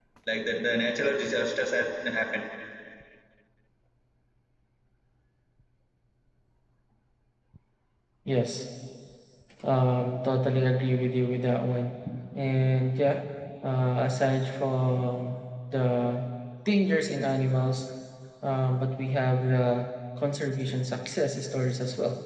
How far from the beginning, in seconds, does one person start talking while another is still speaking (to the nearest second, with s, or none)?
none